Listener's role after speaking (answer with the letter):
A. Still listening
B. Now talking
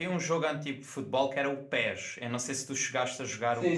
B